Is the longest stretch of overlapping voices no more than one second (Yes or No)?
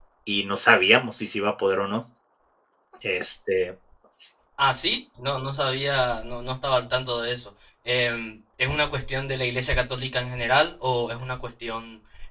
Yes